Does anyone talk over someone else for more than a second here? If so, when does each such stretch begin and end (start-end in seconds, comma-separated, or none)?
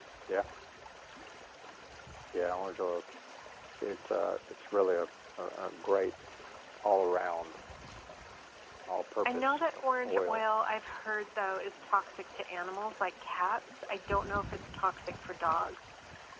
none